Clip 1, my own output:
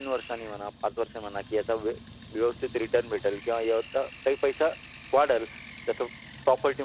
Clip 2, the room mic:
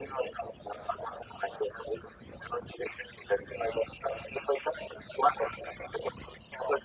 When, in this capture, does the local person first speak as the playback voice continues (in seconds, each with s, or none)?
none